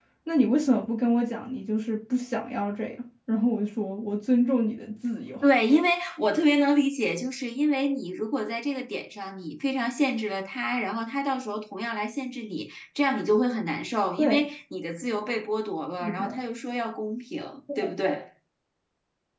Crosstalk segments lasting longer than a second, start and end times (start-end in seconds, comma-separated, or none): none